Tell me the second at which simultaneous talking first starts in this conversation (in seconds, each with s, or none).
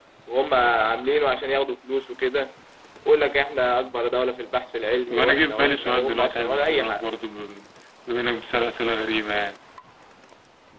5.1 s